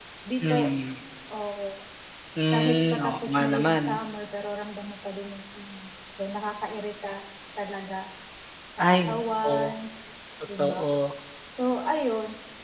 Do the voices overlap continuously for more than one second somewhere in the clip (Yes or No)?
Yes